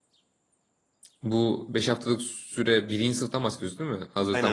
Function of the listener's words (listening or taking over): taking over